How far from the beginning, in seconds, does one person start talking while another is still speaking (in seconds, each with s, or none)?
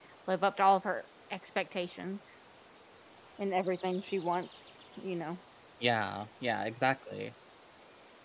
none